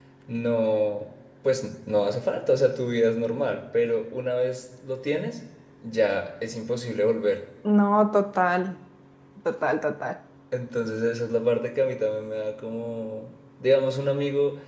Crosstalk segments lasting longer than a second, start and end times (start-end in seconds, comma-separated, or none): none